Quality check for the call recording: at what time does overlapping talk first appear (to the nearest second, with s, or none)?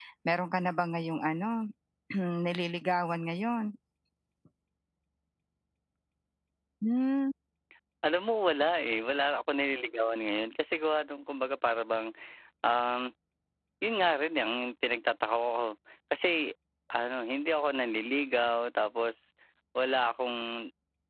none